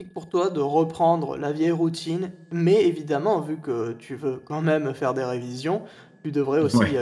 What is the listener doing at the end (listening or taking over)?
listening